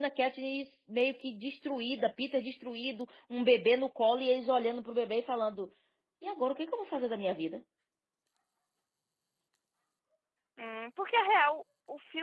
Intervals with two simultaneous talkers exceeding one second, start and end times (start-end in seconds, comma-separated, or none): none